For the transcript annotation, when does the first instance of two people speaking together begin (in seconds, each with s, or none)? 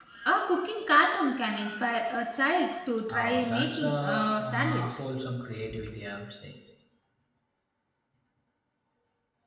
3.1 s